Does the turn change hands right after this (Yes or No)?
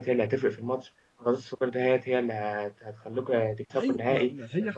Yes